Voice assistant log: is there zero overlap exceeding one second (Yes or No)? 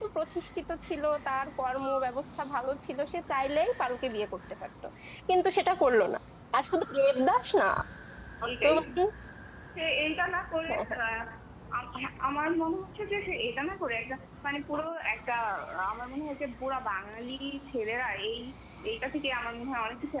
Yes